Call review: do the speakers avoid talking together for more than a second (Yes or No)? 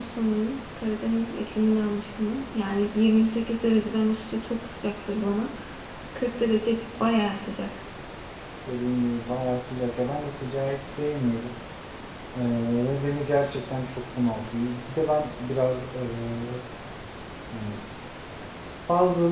Yes